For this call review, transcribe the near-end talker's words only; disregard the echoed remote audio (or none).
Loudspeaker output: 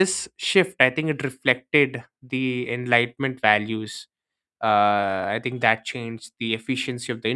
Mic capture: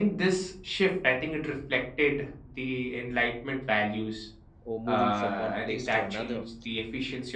or moving from one place to another